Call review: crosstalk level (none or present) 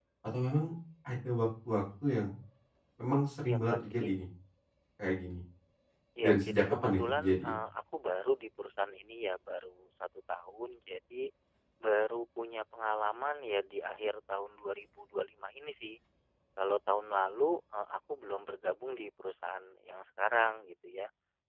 present